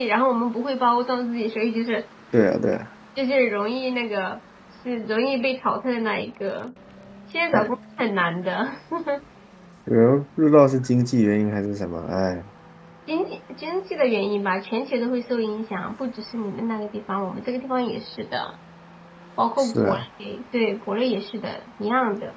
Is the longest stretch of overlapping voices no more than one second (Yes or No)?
Yes